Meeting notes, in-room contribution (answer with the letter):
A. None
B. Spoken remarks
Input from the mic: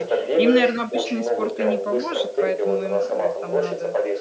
B